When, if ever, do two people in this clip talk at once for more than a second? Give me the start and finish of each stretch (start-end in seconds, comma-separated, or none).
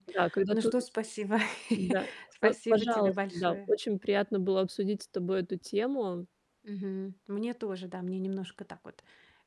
2.4-3.7